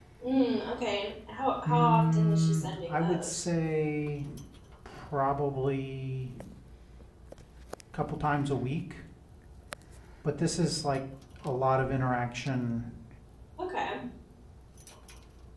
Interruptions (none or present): present